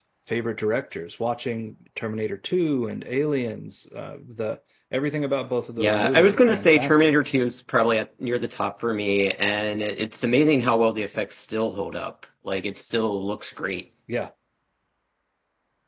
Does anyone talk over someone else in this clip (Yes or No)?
Yes